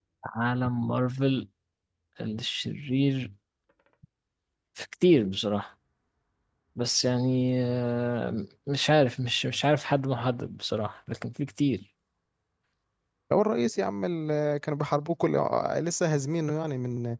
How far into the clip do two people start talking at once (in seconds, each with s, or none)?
none